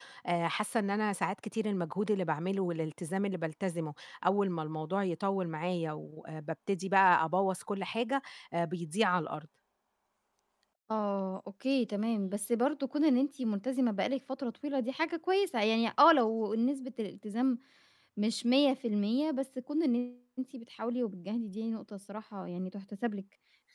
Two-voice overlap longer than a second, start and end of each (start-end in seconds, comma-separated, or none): none